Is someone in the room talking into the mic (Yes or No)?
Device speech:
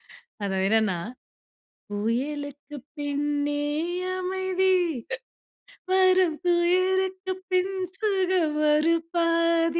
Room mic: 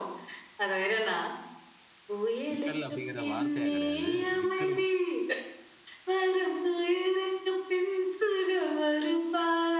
Yes